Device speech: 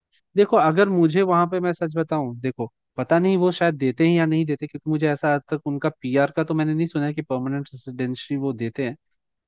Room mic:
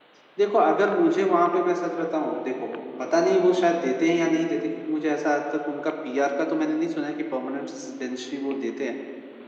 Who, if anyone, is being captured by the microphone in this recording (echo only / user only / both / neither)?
echo only